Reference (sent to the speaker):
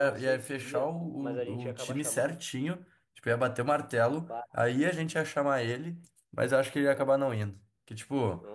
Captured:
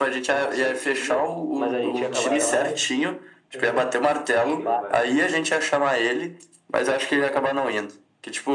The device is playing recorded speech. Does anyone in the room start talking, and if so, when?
1.6 s

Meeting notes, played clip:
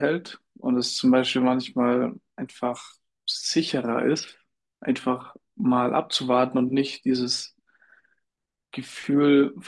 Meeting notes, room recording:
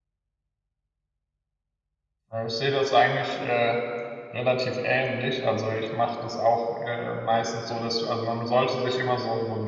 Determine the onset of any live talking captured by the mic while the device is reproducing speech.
2.3 s

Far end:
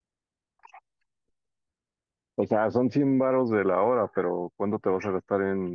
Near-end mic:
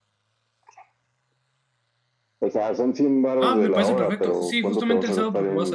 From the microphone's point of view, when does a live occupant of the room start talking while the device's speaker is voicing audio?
3.4 s

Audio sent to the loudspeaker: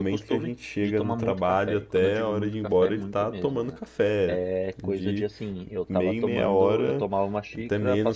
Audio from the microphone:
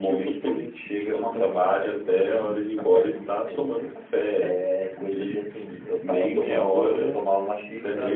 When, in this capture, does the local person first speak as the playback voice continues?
none

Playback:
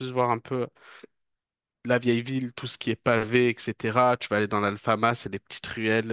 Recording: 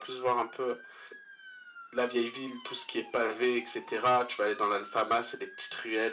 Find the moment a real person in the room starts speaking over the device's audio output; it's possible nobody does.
none

